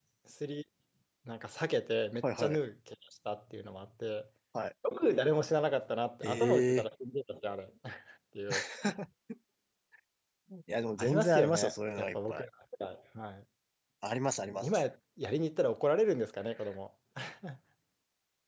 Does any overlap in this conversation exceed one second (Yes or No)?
Yes